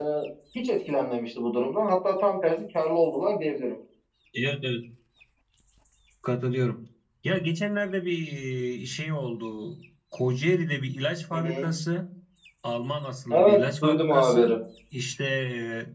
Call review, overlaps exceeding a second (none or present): present